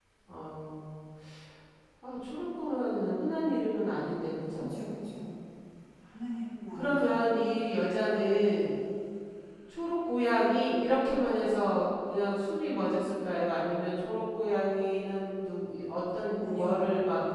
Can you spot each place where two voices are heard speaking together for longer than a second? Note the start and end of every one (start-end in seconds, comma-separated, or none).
none